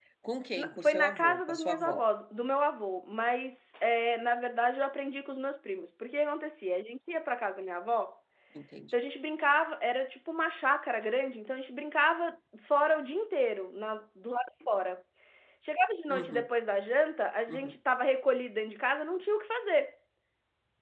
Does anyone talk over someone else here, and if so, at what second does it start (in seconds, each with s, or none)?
0.6 s